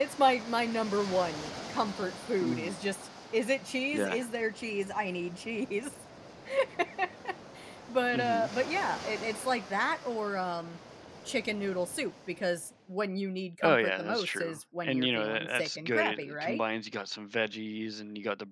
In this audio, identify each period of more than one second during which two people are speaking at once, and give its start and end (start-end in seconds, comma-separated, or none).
13.6-16.6